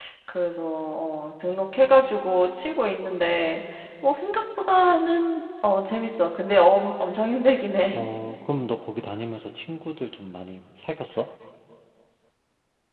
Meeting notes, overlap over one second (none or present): none